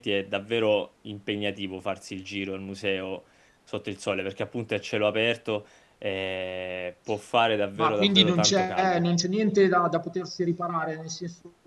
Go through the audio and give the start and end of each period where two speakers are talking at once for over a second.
7.8-9.0

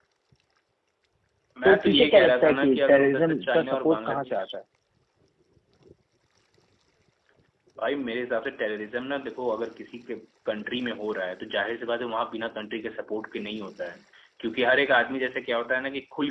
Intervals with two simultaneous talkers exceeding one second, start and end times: 1.6-4.5

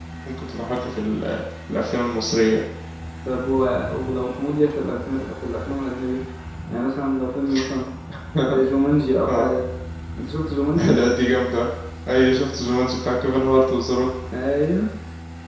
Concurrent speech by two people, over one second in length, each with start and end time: none

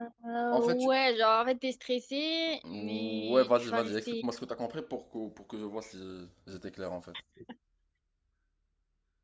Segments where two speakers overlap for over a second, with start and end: 2.7-4.2

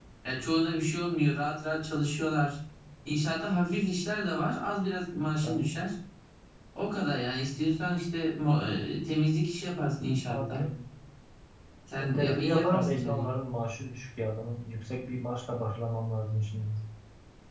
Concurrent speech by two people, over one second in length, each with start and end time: 12.0-13.2

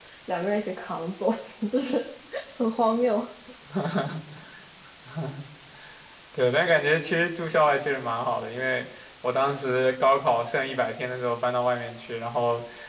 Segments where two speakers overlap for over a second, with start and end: none

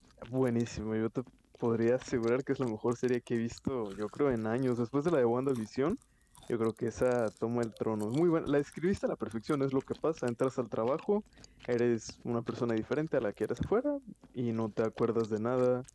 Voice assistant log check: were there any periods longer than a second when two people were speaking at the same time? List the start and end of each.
none

